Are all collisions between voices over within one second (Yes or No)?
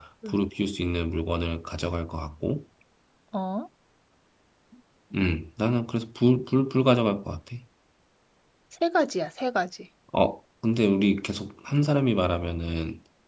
Yes